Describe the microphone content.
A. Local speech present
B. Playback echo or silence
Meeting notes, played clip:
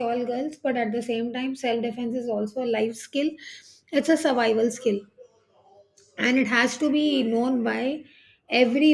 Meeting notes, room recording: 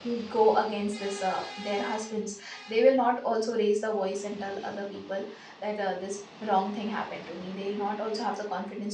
A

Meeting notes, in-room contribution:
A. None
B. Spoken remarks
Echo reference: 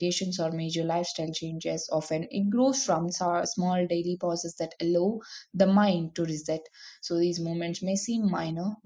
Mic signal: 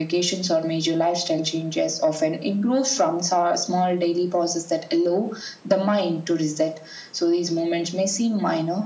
A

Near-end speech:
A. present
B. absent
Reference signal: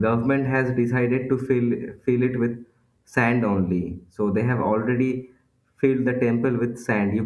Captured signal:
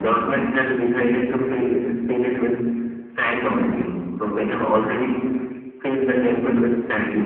B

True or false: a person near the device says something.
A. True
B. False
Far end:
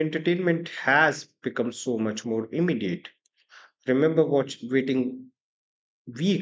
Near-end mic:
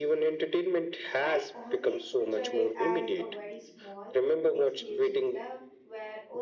A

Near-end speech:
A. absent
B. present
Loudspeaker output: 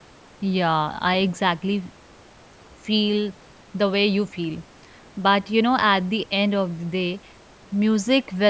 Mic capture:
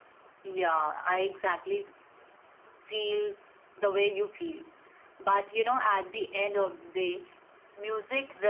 A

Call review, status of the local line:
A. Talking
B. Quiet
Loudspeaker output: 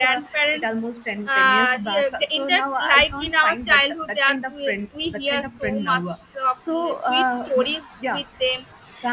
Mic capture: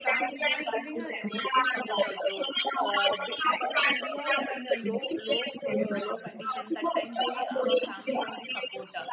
A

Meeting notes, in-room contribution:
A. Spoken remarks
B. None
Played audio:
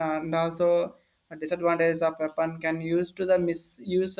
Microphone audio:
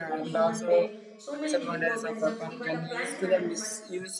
A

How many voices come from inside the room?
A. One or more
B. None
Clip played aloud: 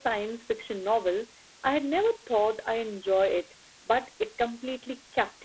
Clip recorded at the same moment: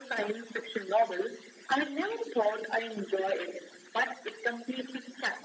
B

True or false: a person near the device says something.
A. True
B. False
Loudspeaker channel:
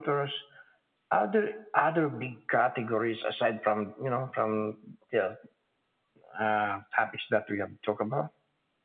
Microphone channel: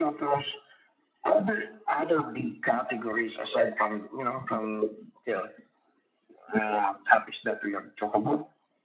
B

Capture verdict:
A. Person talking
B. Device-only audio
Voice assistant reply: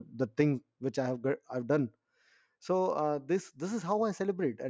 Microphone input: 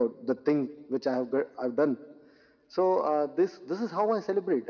B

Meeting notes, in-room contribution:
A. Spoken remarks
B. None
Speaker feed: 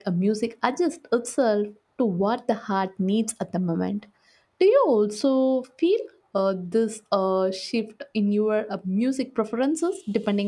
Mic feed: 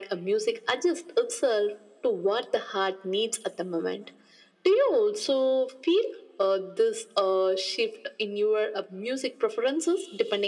B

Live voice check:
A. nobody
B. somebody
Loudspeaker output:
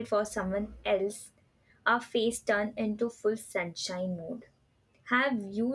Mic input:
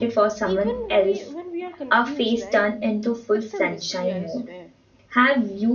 B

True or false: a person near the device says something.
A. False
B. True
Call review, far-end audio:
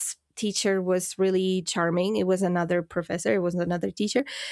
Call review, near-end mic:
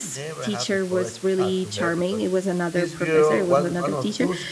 B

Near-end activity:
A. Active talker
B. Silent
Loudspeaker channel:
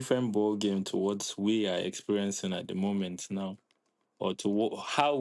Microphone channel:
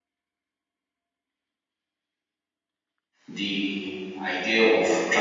A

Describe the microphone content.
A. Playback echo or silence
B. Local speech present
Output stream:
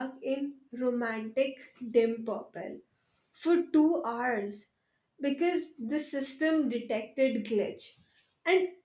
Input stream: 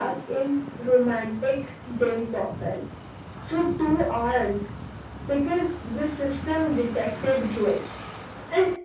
A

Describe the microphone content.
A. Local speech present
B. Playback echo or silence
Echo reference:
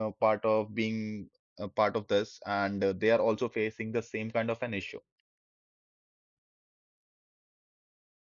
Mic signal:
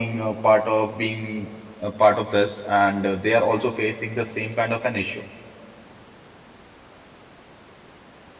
B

